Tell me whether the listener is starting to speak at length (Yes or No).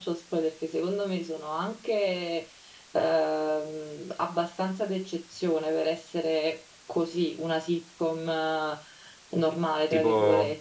Yes